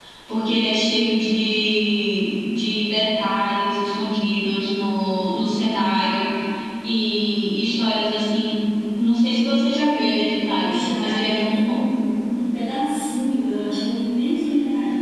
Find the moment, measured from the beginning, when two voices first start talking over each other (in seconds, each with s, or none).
10.6 s